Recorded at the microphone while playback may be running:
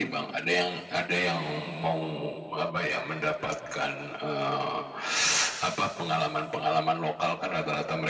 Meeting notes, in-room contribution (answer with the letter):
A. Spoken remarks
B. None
B